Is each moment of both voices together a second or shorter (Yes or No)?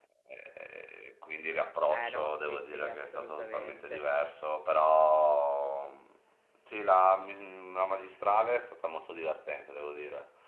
No